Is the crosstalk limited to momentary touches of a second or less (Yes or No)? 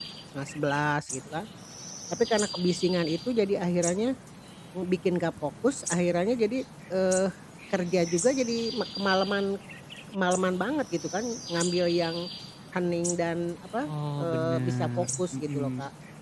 No